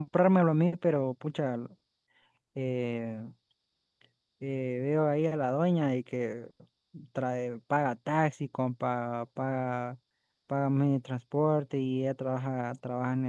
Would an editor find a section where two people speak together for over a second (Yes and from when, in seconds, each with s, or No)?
No